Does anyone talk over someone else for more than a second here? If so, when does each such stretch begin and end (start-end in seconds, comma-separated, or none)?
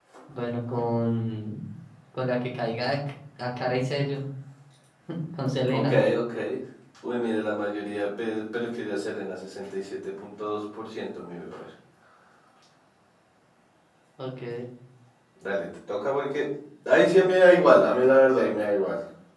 none